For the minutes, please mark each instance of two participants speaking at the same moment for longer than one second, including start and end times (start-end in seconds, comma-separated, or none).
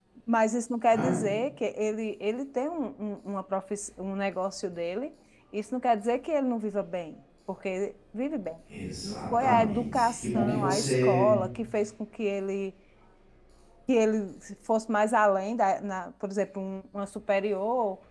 9.0-11.3